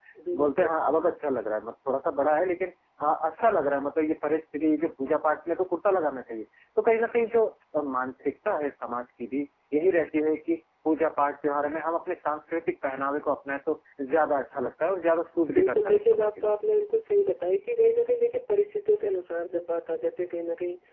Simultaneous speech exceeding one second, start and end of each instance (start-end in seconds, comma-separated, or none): 15.5-16.8